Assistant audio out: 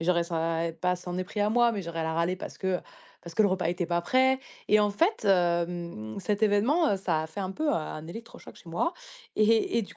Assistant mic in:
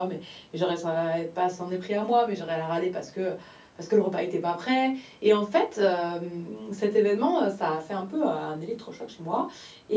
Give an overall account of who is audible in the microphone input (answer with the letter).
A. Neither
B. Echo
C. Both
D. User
B